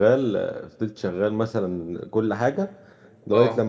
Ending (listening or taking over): listening